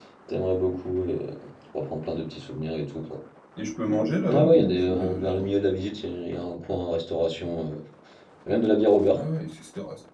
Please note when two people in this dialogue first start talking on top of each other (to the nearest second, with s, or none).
4 s